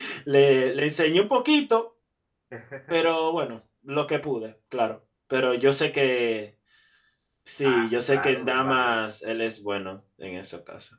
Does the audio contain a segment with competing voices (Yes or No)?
Yes